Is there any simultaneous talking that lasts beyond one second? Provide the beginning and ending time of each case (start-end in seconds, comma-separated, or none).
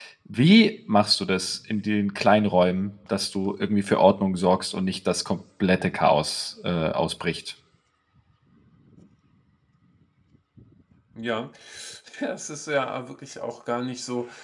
none